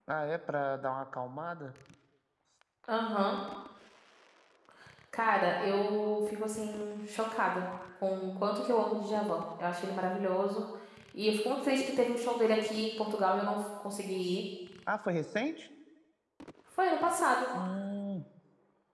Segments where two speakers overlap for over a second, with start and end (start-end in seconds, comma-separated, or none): none